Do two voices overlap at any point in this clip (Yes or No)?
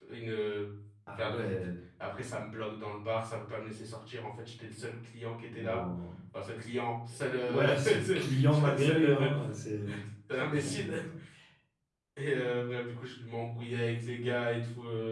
Yes